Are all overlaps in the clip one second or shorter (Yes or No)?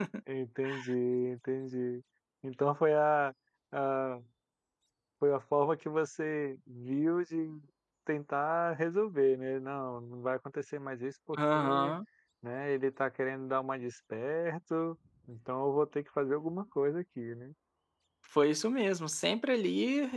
Yes